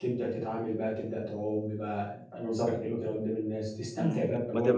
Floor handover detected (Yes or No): Yes